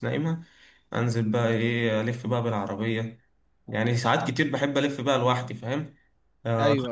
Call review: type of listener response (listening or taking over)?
listening